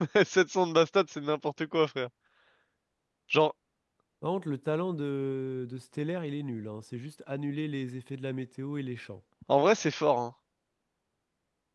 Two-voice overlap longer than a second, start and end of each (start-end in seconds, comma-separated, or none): none